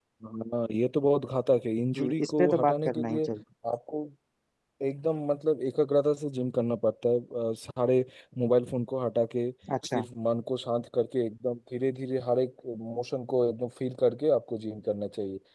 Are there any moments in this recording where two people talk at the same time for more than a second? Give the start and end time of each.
2.0-3.2

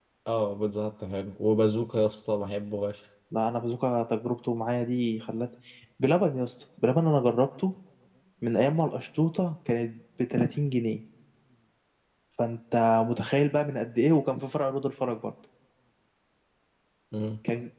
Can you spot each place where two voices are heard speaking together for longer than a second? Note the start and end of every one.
none

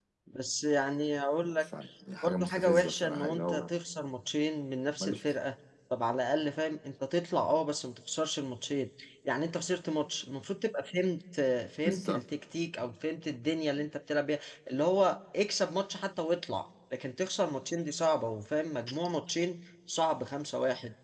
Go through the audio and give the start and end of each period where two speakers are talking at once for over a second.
2.2-3.7

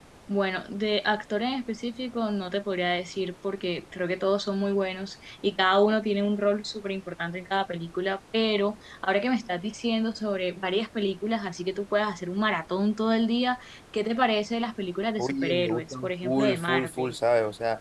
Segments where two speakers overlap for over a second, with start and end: 15.2-17.1

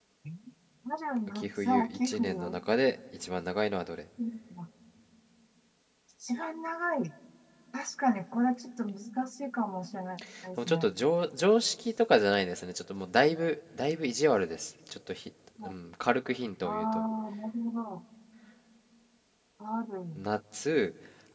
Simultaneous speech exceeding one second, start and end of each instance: 1.3-2.6

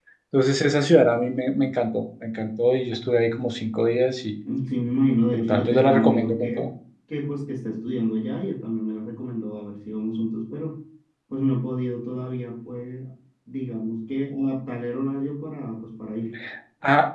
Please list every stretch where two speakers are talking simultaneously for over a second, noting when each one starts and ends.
5.3-6.7

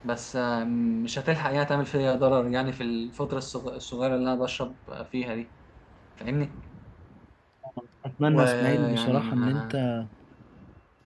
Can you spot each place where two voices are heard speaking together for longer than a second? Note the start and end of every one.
8.2-9.7

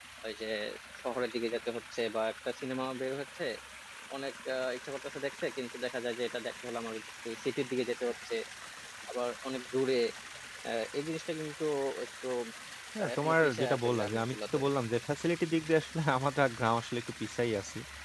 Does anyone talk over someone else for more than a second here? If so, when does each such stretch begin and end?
13.0-14.6

